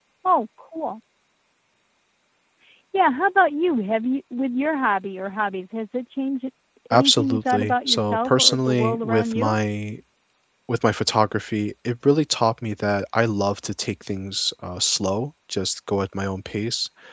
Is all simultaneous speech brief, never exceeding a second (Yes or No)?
No